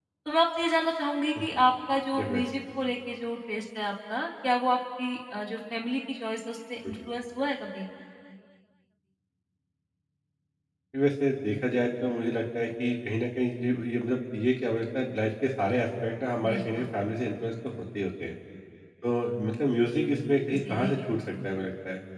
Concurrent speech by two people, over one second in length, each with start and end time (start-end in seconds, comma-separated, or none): none